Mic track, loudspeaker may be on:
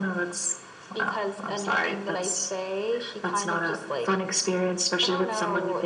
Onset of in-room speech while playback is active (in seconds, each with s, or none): none